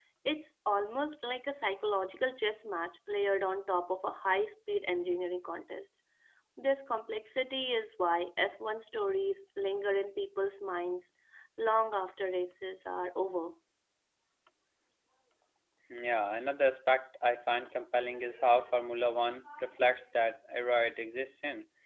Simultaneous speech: No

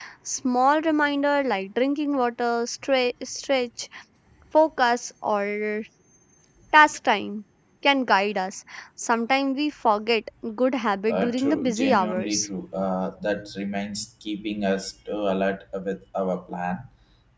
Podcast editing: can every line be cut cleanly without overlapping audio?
No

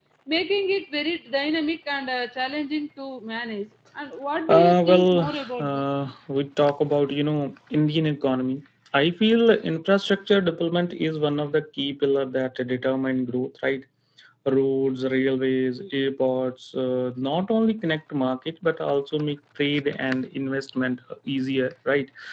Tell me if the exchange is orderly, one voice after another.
No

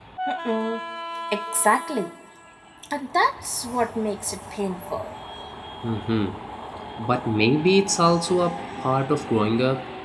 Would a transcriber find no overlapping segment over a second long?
Yes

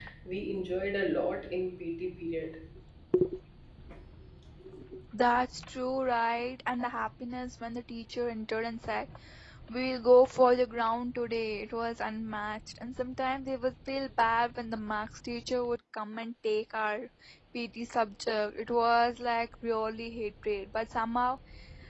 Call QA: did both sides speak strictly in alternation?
Yes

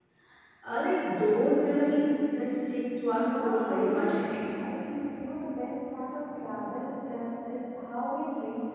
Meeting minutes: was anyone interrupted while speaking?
Yes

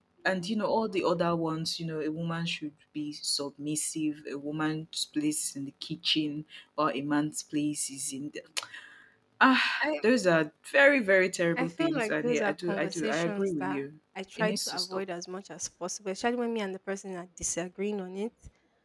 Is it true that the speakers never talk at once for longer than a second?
No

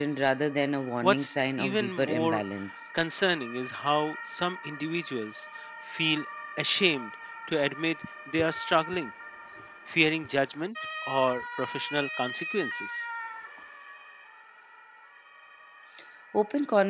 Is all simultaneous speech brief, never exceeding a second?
No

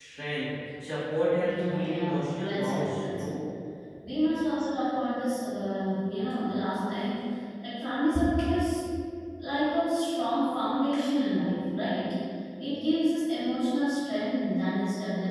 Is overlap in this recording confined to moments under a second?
No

